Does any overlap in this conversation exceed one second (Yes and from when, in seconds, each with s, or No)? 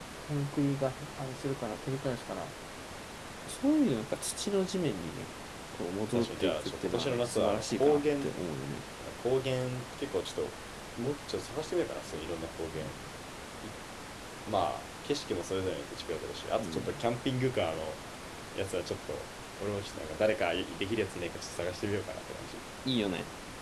Yes, from 6.1 s